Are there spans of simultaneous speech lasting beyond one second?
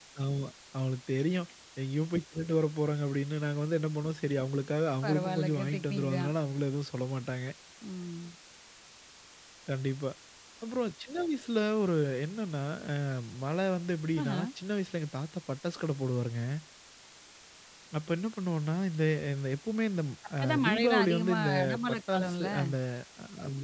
Yes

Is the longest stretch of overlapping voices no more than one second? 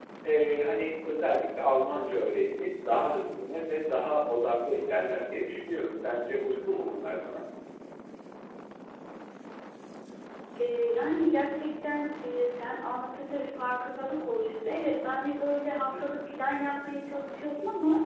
Yes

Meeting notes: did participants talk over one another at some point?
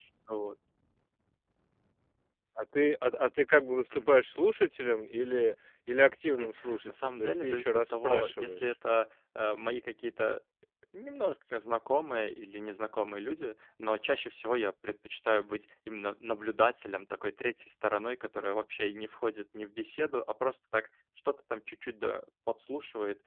Yes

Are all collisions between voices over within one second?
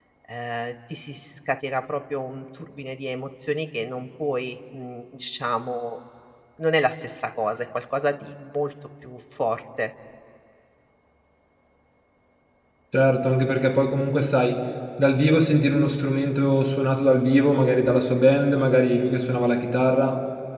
Yes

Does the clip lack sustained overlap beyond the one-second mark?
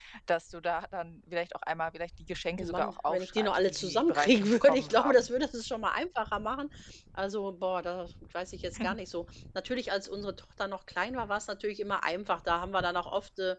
No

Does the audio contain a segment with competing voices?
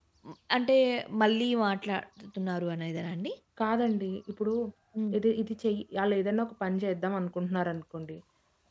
No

